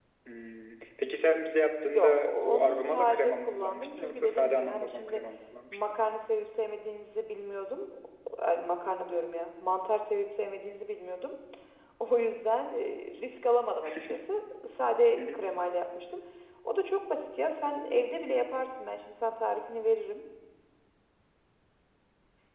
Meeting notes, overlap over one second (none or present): present